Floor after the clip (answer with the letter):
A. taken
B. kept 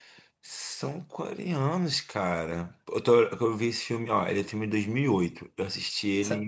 A